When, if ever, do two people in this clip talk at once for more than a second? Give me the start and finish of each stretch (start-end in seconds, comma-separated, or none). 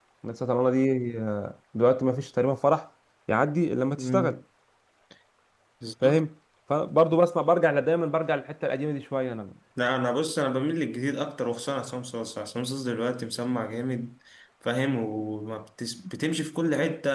none